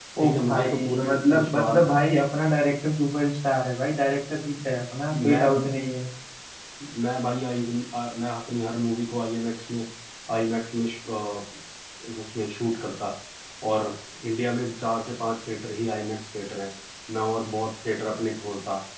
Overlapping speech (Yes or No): Yes